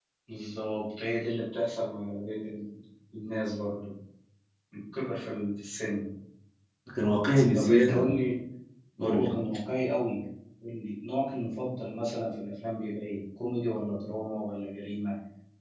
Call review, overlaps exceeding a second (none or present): none